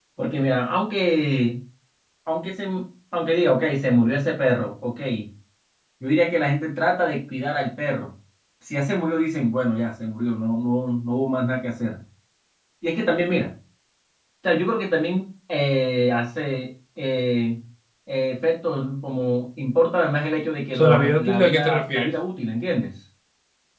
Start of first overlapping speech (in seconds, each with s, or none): 20.7 s